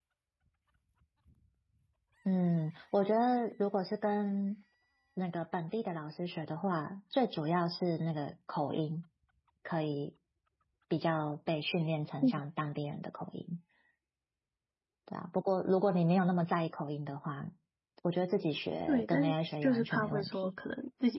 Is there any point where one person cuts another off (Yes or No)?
Yes